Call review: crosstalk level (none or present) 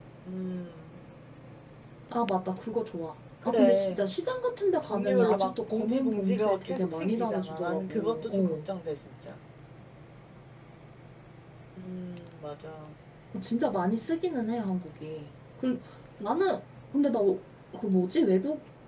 present